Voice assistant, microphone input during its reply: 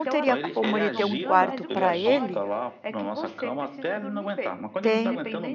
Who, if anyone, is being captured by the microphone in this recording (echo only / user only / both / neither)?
both